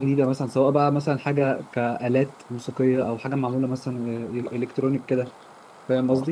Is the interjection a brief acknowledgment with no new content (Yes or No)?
No